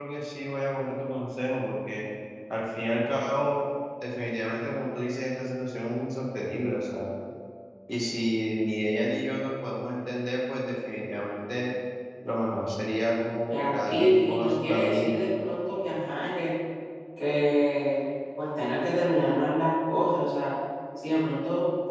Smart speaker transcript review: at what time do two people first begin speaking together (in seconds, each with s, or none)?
13.4 s